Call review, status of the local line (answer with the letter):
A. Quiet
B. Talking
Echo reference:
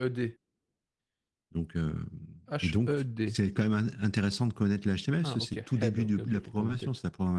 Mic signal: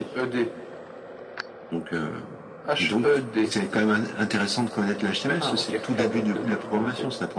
A